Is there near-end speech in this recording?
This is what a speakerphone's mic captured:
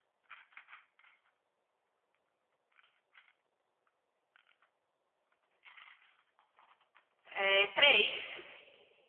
Yes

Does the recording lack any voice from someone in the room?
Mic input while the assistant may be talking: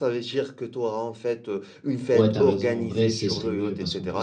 No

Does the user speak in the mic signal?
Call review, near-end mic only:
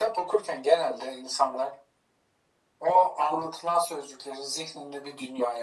No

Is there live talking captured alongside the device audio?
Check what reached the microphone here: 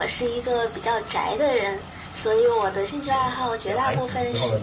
Yes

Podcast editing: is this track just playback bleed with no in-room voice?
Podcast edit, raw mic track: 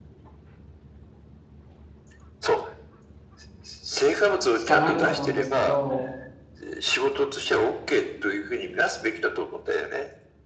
No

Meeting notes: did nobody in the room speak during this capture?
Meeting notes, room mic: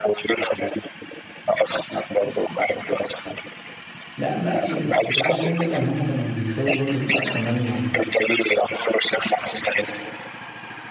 No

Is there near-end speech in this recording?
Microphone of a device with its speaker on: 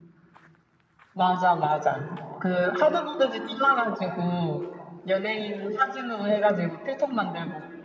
No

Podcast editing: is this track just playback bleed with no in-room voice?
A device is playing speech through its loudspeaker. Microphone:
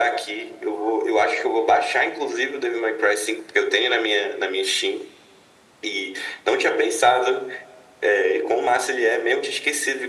Yes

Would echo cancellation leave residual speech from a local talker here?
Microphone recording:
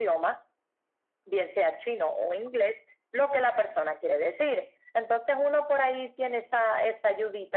No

